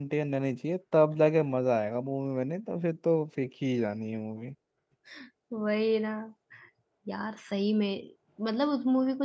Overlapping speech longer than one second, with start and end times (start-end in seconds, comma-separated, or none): none